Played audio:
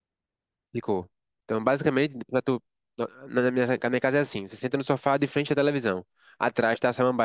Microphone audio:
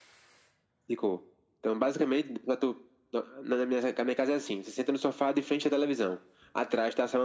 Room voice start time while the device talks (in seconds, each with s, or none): none